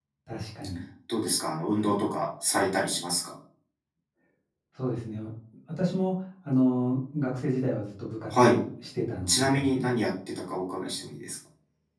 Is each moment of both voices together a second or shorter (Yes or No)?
Yes